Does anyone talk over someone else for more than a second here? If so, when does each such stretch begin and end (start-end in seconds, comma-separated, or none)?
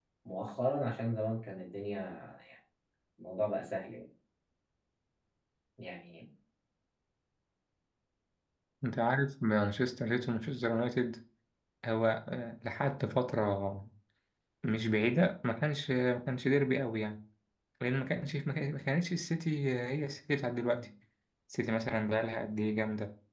none